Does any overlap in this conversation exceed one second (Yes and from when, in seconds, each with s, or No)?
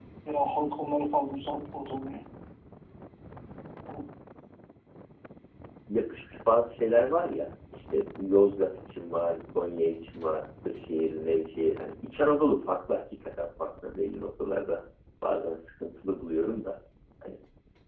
No